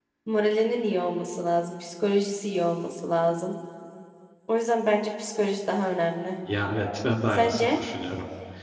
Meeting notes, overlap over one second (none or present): none